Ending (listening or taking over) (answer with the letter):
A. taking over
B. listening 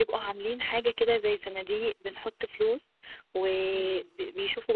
B